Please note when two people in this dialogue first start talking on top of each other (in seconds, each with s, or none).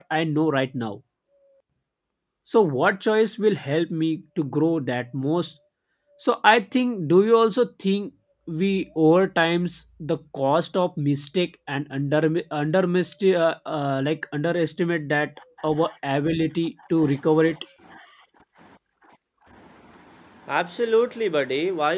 none